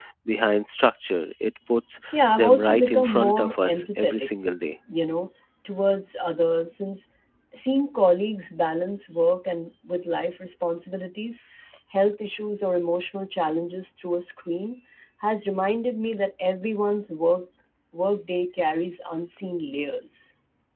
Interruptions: present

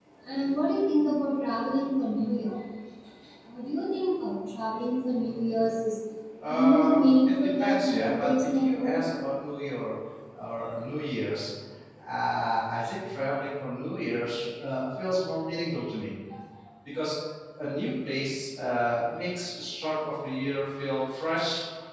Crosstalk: present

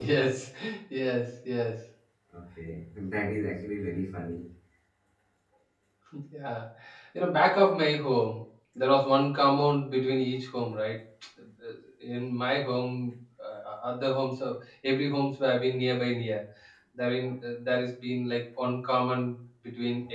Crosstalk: none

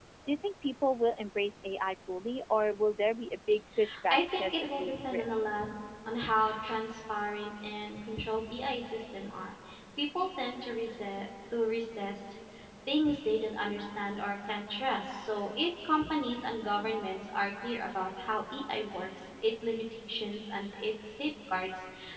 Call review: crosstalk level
present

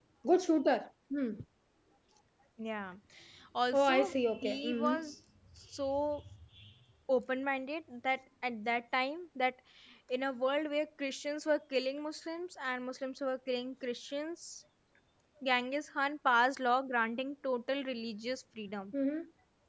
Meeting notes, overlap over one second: present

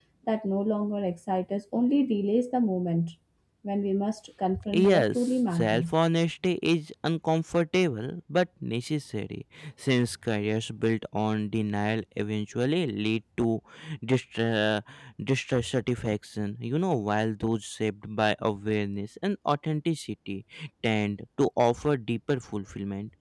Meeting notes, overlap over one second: present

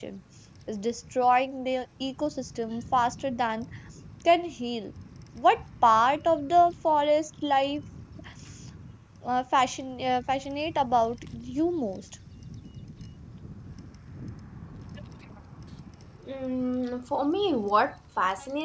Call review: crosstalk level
none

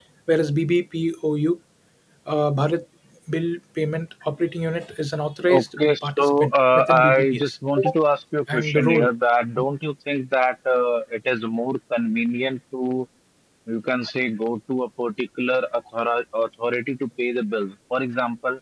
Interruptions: present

